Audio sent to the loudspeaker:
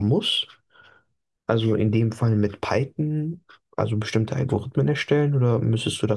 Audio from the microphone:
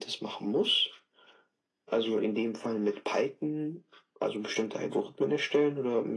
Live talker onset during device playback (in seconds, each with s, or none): none